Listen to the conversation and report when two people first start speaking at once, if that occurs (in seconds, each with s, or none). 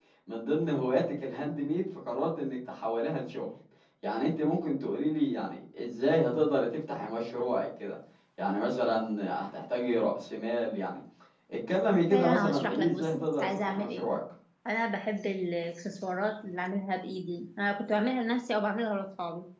12.1 s